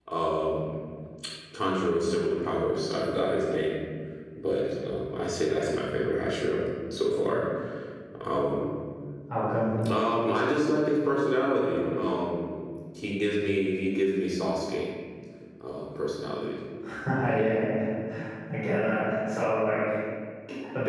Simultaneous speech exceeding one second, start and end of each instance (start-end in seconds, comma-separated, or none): none